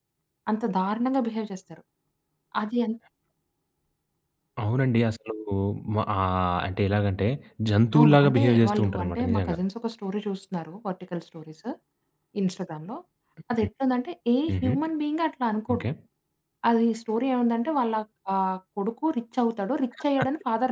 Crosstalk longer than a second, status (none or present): present